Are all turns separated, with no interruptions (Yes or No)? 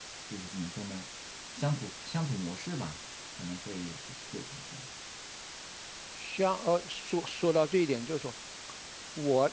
Yes